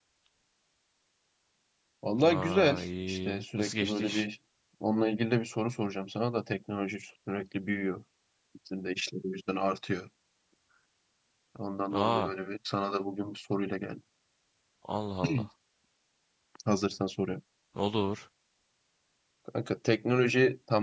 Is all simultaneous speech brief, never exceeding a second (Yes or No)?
No